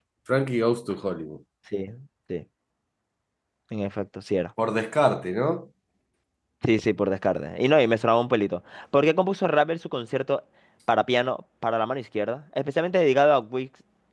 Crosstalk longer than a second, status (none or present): none